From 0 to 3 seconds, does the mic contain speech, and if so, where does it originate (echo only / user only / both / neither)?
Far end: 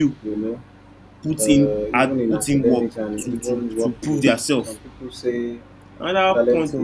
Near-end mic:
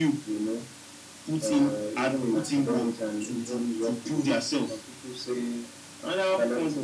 echo only